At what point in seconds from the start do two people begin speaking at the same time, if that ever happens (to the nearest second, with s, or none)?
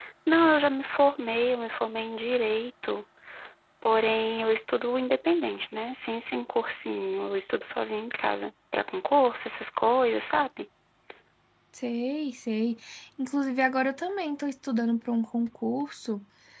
none